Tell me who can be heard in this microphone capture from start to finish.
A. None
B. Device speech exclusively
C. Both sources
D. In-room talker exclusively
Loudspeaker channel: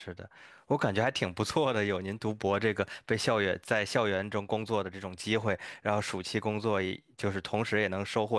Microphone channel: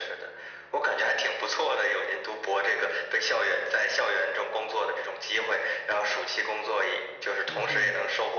C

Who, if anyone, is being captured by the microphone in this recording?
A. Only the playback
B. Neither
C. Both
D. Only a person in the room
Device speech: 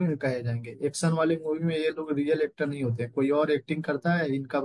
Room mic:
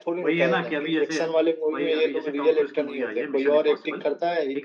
C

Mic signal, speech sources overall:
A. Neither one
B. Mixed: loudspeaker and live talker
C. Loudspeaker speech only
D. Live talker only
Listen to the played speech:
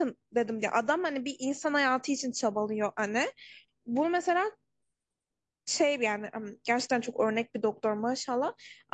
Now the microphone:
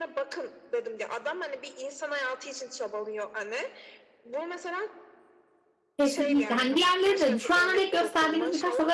B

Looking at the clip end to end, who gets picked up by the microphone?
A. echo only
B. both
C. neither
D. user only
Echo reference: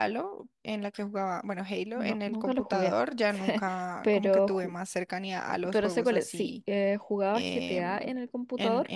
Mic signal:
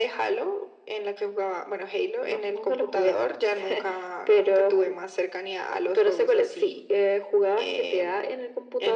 A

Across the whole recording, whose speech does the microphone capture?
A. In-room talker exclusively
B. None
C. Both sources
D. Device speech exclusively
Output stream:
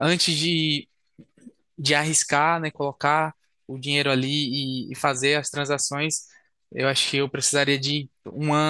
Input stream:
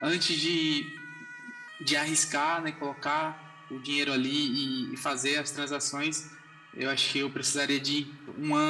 D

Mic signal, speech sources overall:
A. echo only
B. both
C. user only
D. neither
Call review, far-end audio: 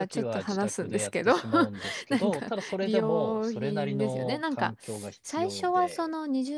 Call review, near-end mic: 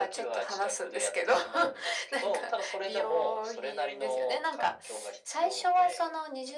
A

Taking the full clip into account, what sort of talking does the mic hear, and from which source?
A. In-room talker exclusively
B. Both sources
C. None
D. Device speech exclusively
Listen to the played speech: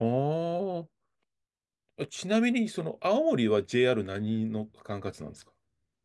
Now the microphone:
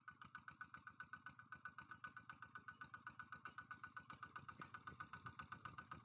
C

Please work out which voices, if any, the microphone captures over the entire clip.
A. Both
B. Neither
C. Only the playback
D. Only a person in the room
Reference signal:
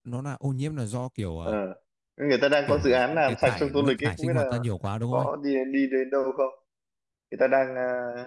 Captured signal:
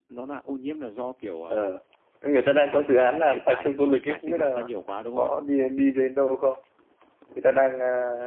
C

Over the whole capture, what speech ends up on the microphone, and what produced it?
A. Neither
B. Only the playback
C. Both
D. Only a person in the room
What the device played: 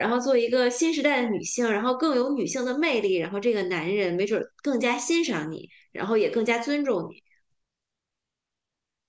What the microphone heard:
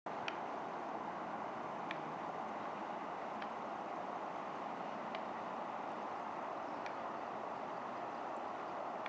A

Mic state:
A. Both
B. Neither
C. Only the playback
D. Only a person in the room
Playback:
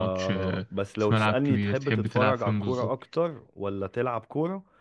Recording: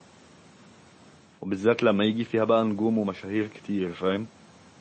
D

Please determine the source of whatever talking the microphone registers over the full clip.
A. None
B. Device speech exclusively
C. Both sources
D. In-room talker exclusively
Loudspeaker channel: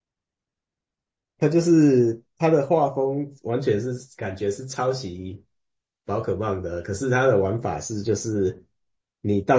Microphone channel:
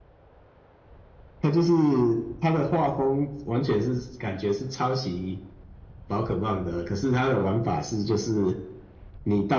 B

